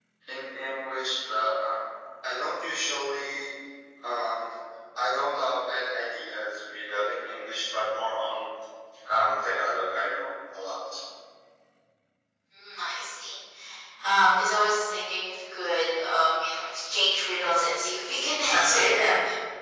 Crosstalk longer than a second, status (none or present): none